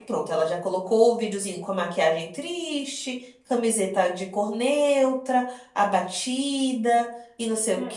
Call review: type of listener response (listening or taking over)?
taking over